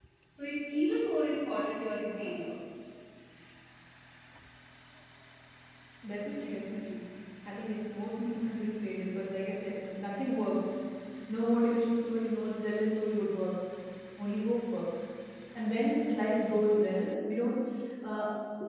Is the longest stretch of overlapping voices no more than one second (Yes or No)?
Yes